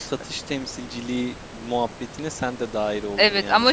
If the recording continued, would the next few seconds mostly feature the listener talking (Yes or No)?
Yes